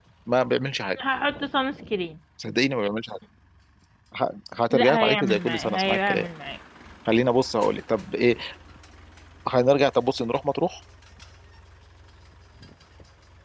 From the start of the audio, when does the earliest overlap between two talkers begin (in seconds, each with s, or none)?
4.7 s